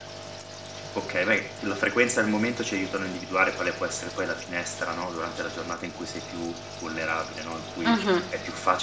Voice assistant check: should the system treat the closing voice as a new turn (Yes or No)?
No